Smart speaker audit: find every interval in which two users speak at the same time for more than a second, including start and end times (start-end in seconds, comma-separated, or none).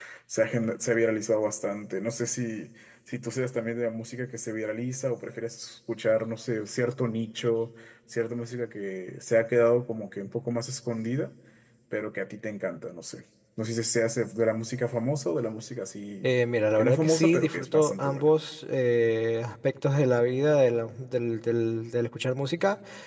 16.8-18.3